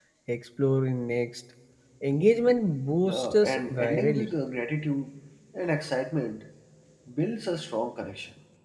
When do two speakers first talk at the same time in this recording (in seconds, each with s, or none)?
3.0 s